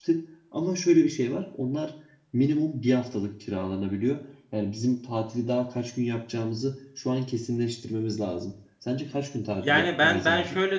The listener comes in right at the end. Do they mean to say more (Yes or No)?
Yes